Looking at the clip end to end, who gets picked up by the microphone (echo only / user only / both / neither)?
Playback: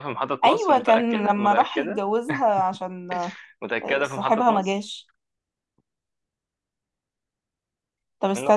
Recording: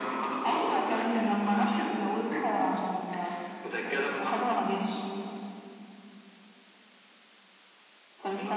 echo only